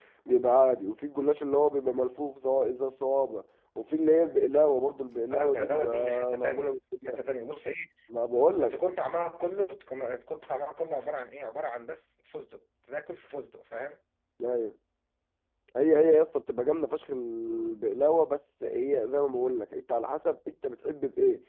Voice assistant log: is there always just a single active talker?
No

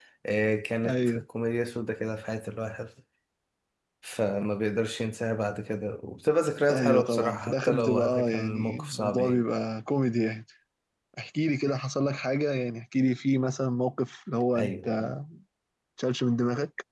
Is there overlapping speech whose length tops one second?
Yes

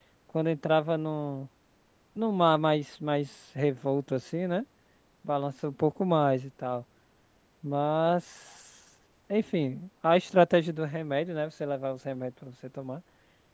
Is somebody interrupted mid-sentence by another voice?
No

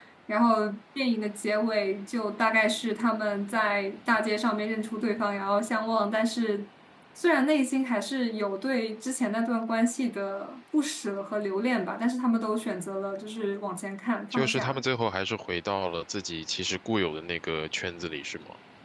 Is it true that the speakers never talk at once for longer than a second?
Yes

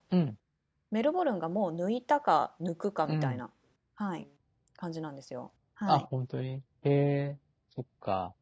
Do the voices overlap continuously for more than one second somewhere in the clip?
No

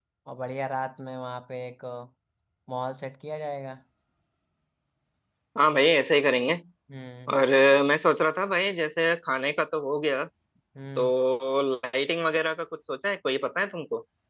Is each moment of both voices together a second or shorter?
Yes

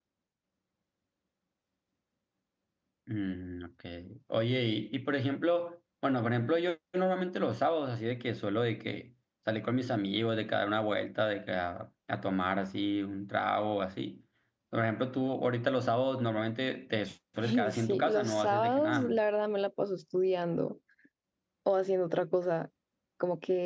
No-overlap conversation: No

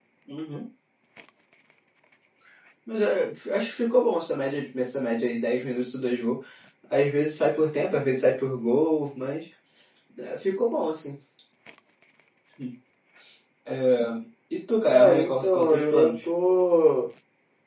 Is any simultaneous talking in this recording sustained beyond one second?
Yes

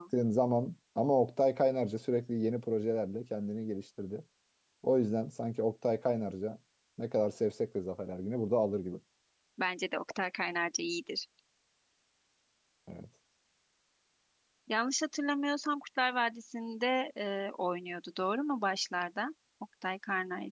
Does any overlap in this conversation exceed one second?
No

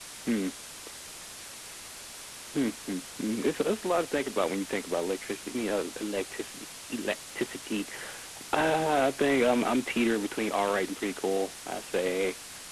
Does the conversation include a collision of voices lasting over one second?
No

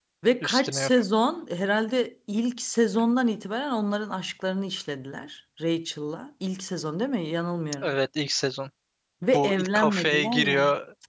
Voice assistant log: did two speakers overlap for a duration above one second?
Yes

